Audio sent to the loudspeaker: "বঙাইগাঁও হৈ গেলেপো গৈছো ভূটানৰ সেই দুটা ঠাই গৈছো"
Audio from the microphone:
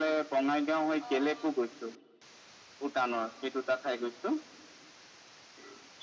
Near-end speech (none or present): present